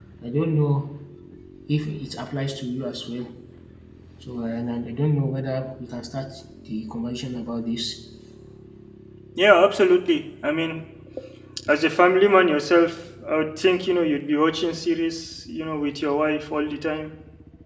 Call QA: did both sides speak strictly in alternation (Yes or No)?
Yes